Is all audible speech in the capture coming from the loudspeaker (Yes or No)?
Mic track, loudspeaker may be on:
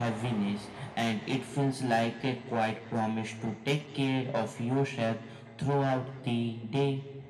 Yes